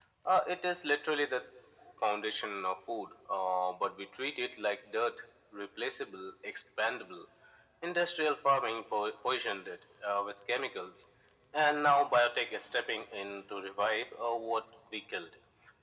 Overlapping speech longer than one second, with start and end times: none

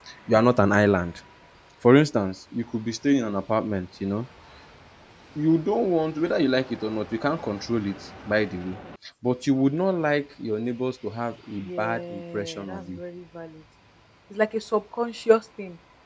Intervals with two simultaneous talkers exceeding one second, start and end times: 11.8-13.0

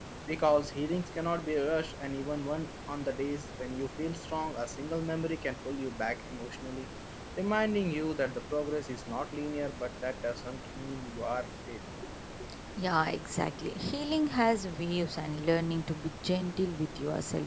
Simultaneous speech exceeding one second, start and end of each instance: none

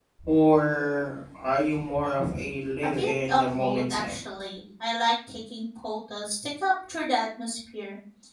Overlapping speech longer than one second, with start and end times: 2.8-4.2

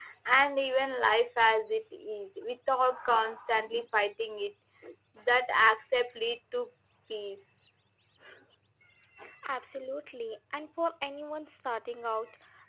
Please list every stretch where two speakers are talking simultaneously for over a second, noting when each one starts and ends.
none

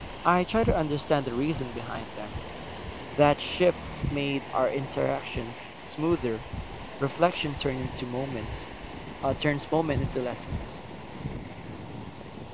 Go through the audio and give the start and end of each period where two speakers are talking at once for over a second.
none

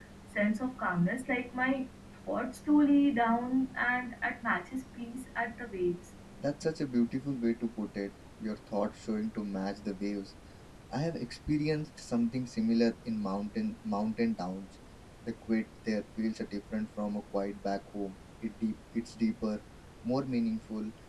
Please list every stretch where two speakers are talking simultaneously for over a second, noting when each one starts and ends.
none

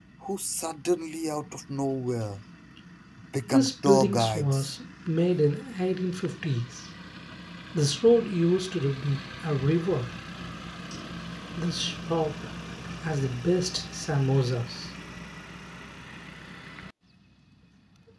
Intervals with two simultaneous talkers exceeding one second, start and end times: 3.5-4.8

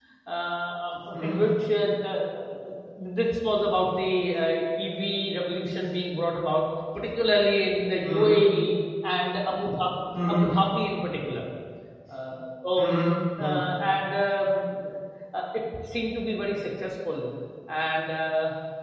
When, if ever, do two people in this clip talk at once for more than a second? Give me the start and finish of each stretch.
none

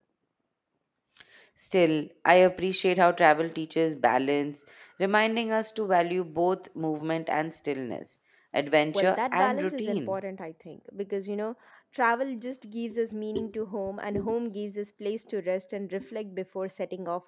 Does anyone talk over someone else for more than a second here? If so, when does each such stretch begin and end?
8.9-10.2

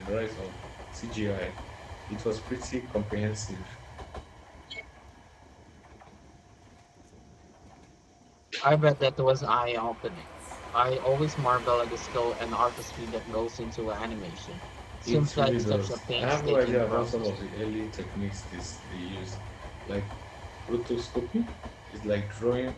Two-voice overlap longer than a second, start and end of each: 15.1-17.3

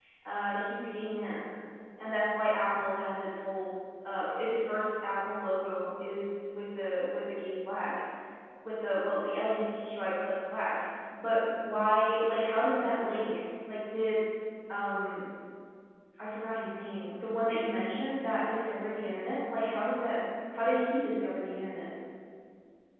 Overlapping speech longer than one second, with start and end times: none

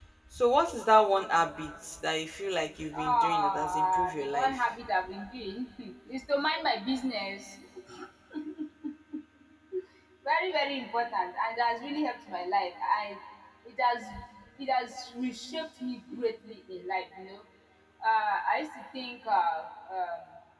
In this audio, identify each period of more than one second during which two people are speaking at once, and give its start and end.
2.9-4.6

